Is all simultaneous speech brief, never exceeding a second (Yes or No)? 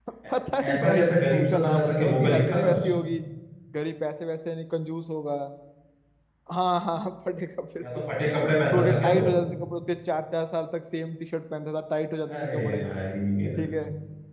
No